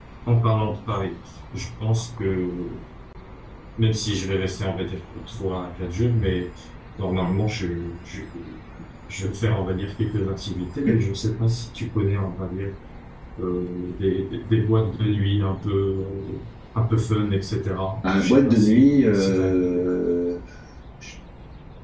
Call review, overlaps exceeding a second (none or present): present